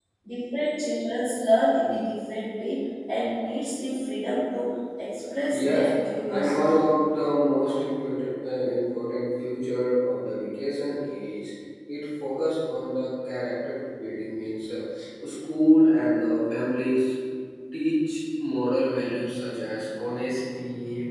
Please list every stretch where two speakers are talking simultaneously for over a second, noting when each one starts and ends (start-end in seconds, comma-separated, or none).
5.5-6.8